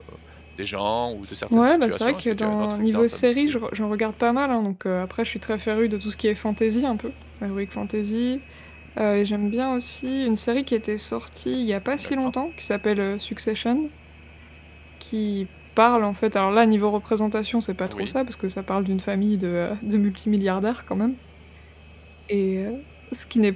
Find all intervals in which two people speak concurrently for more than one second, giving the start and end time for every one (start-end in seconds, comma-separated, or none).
1.5-3.6